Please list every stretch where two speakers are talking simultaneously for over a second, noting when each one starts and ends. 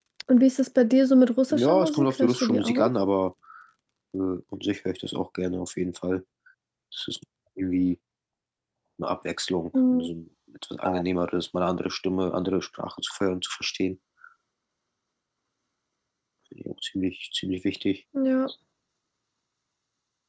1.5-2.9

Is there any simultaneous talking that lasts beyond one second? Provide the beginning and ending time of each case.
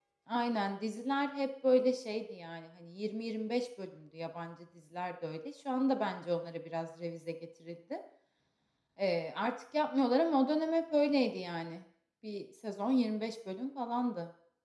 none

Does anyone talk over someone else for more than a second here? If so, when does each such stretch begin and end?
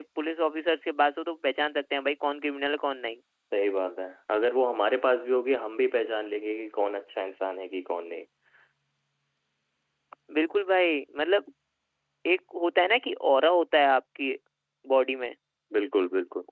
none

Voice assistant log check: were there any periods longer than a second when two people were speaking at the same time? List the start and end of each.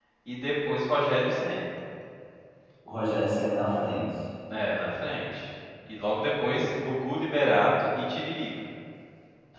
none

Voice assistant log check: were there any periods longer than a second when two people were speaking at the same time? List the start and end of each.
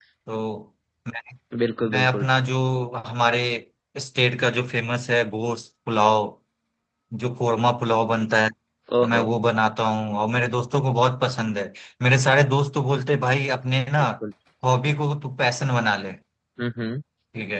none

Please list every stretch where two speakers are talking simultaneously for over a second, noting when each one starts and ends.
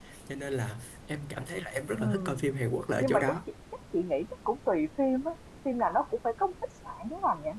none

